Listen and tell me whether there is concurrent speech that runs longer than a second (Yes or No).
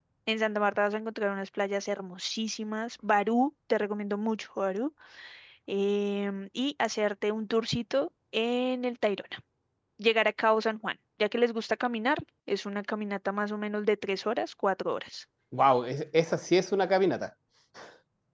No